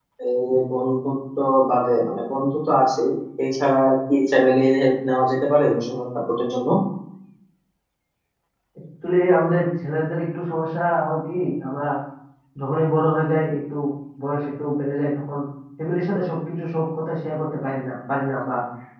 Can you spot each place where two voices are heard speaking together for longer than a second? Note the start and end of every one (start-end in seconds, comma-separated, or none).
none